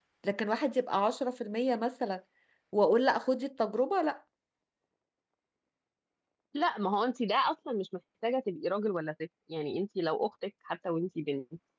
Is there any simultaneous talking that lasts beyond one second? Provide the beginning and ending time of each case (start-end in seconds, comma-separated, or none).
none